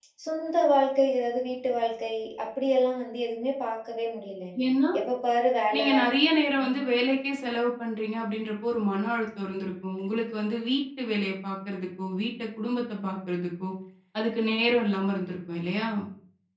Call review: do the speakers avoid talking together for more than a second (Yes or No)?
Yes